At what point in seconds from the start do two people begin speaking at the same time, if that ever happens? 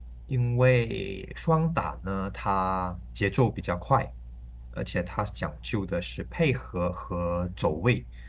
none

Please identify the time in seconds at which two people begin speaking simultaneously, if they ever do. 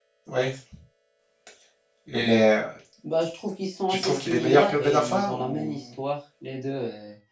4 s

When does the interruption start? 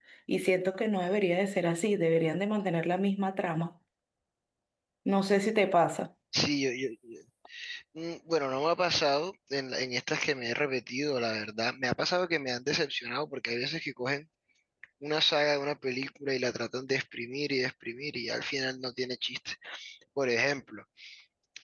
none

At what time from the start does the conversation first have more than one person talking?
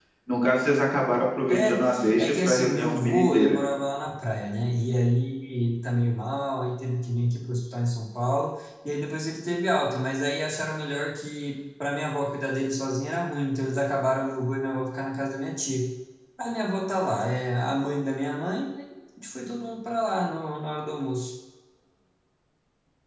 1 s

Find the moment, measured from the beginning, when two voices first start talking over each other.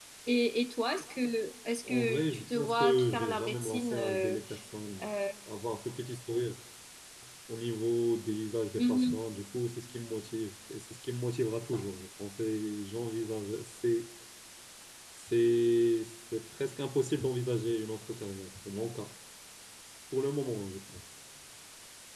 2 s

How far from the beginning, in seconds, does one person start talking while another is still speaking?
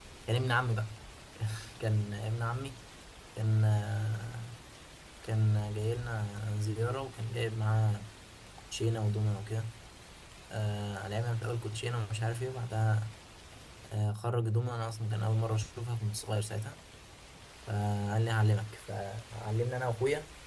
none

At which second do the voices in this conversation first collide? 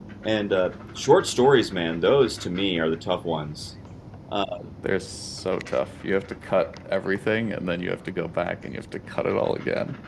none

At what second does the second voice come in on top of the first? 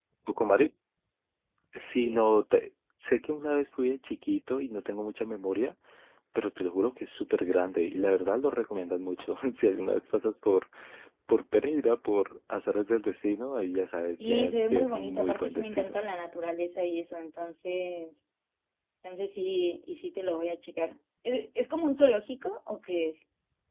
14 s

